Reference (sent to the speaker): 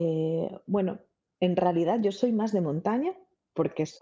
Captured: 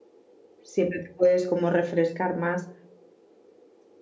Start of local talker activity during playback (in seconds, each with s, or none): 0.6 s